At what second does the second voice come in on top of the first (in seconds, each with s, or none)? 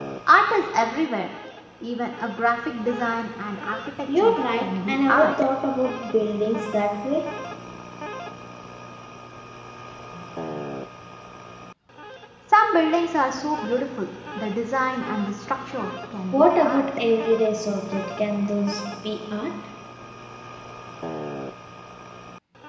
4.1 s